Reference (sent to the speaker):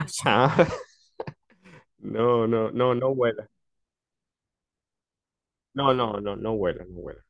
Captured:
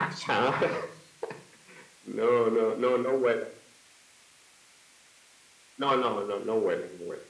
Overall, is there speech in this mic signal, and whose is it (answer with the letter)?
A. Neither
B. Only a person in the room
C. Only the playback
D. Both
C